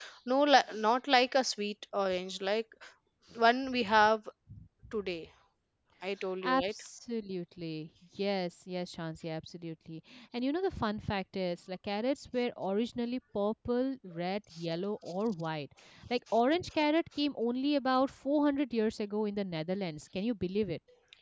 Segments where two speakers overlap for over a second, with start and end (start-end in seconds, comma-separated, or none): none